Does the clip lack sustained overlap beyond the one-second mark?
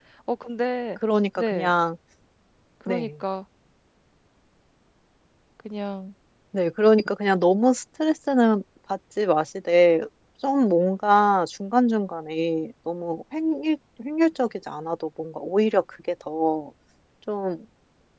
Yes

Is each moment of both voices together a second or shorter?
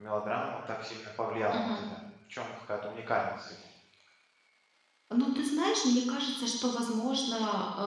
Yes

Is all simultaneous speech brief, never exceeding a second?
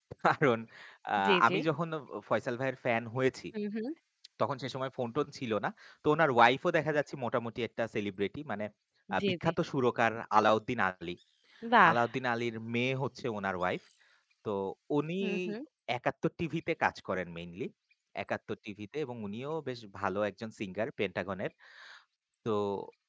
Yes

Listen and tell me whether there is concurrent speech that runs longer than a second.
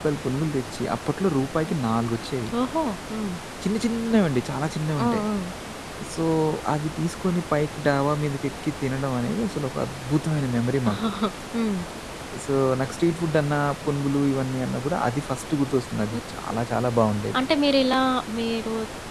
No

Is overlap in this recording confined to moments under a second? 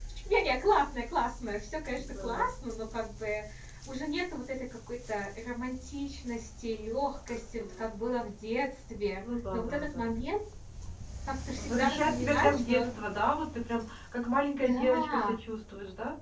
No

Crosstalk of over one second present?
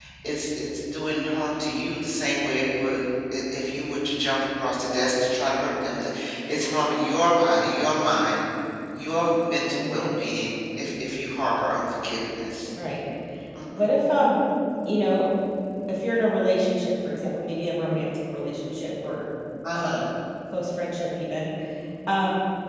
No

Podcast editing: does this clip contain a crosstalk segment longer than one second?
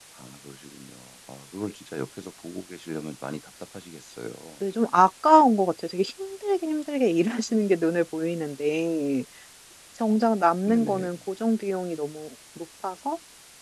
No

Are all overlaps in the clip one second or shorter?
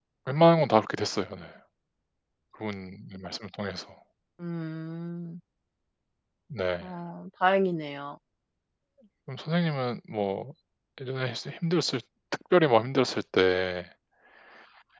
Yes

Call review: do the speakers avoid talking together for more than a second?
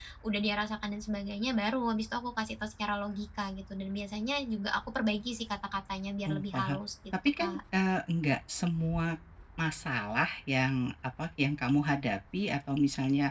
Yes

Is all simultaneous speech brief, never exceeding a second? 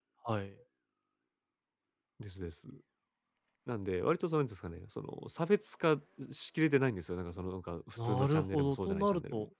No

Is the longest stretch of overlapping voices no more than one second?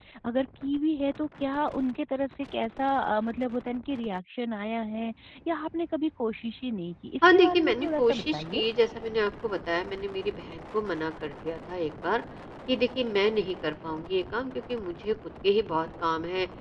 No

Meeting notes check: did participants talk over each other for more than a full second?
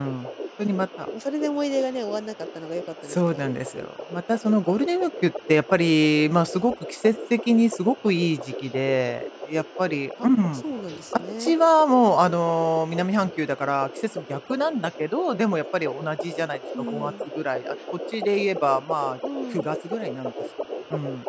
No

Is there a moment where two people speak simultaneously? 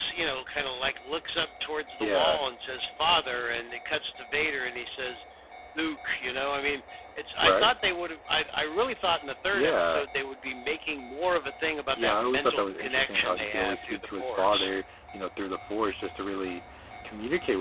Yes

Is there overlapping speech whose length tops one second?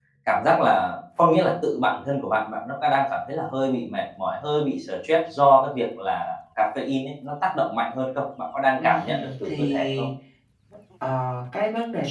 Yes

